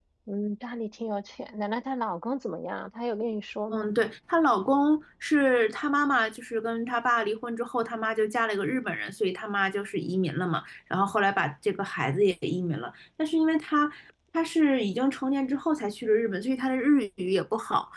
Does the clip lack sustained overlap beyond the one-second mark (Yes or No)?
Yes